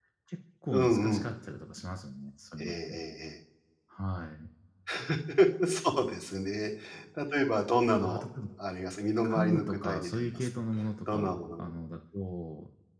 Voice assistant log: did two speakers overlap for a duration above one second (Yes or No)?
Yes